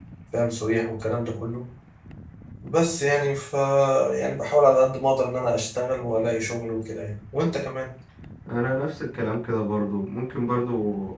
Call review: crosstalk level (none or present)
none